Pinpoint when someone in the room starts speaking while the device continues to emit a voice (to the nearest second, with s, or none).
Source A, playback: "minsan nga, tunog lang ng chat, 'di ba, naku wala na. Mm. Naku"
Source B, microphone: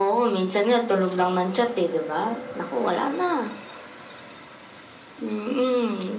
none